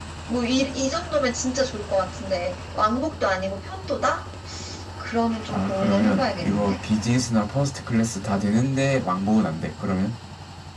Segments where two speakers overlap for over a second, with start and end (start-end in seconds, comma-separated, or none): 5.5-6.7